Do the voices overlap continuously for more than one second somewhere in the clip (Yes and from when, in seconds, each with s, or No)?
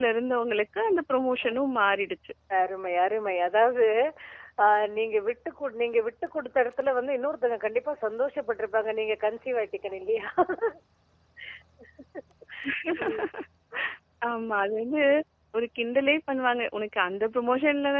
No